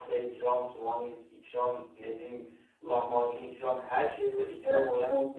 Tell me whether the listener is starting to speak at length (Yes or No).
Yes